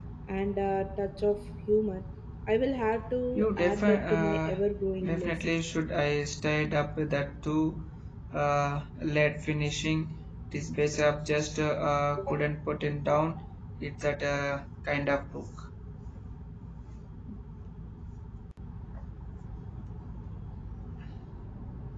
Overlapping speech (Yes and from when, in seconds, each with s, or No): Yes, from 3.4 s